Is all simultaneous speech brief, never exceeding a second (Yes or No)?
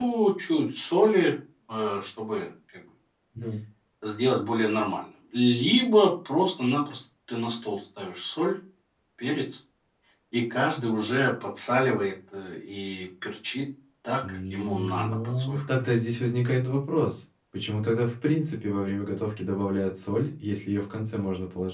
No